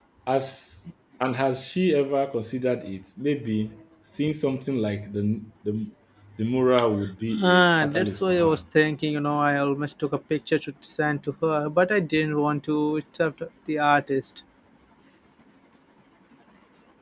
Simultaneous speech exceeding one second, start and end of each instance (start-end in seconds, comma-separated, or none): 7.4-8.6